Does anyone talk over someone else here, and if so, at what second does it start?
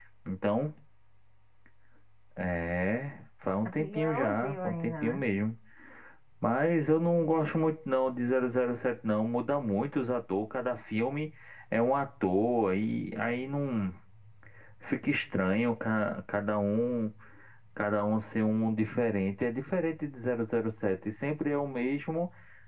3.6 s

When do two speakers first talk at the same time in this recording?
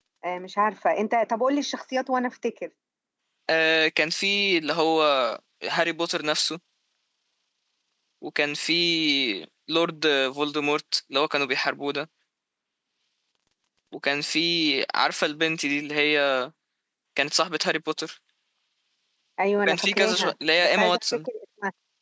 19.7 s

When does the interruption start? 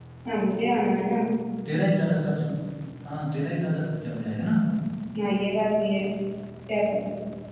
none

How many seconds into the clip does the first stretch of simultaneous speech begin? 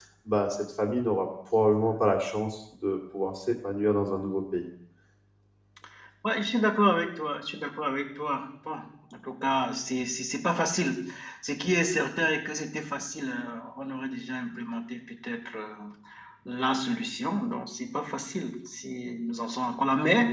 none

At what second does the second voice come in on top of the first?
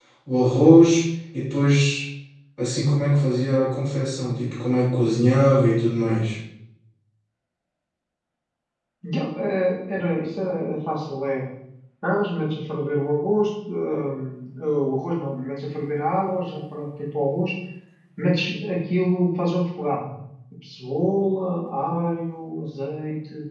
none

